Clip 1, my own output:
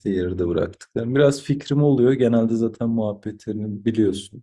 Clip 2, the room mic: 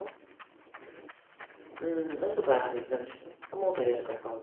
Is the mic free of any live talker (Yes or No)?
No